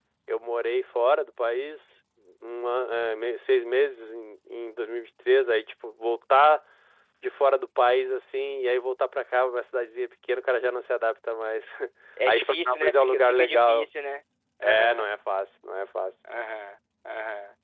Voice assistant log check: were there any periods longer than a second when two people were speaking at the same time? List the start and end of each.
12.3-13.9

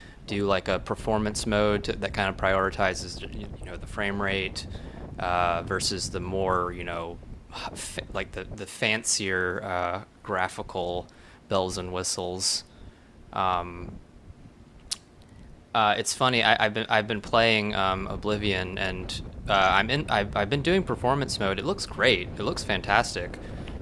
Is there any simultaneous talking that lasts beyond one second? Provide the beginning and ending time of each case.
none

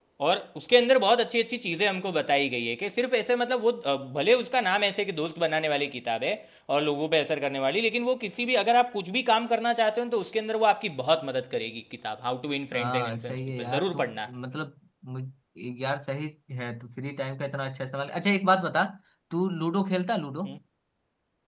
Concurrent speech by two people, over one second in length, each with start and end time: 12.7-14.1

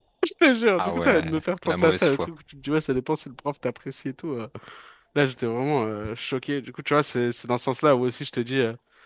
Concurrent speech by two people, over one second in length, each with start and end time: 0.8-2.3

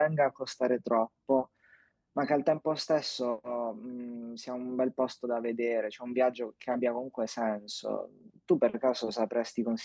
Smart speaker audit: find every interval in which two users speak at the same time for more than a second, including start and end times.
none

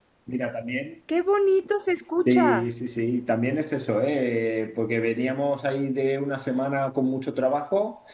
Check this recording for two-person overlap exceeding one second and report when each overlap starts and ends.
none

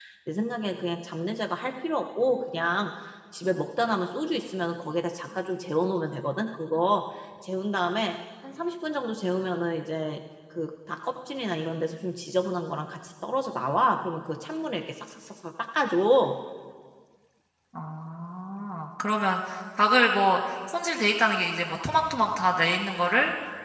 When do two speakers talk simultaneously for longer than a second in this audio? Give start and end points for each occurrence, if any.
none

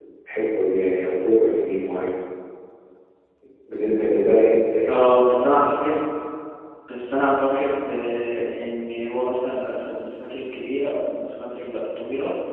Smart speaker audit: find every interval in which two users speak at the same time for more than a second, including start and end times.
none

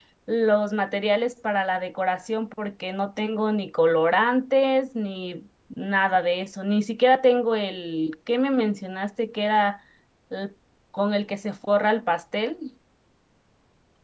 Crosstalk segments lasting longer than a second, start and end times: none

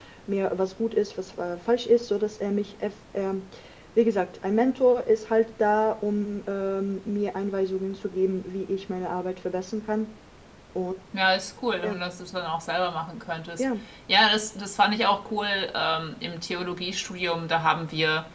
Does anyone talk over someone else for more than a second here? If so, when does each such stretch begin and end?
none

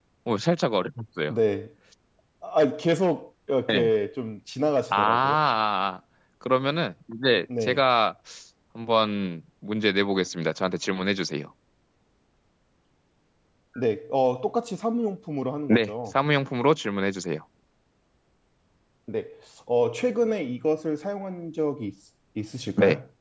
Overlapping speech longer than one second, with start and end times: none

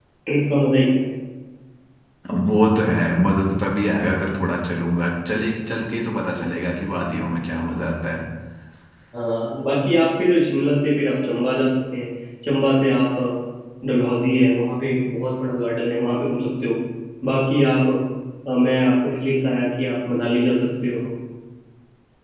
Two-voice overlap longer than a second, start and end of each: none

